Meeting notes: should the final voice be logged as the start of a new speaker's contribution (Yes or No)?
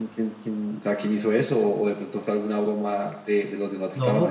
Yes